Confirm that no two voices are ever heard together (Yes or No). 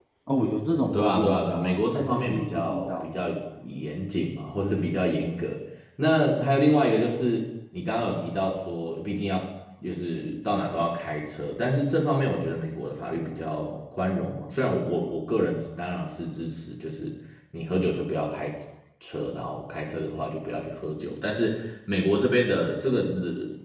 No